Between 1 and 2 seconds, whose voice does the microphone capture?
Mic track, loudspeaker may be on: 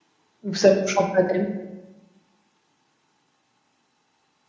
user only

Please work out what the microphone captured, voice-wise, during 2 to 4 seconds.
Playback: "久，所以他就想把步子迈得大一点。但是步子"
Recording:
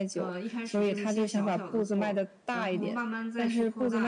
both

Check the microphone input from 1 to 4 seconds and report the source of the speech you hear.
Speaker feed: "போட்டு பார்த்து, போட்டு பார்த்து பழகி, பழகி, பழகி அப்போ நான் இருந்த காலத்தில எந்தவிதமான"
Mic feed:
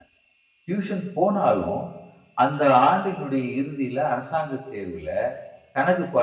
user only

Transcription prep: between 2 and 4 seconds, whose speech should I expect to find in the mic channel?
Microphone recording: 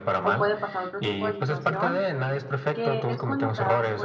both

